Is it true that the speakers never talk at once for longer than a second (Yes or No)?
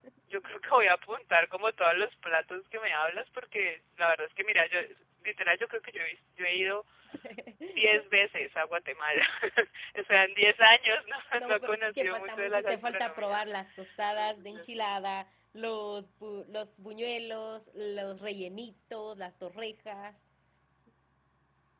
No